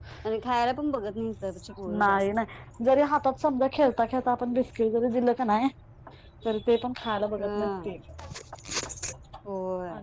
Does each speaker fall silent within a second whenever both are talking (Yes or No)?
Yes